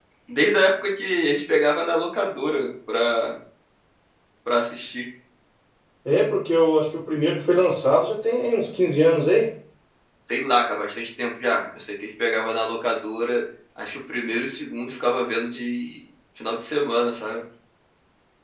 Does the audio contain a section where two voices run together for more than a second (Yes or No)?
No